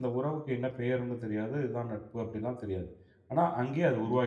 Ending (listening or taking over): taking over